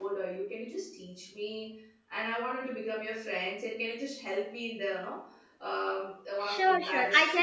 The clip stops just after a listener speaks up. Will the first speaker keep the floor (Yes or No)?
No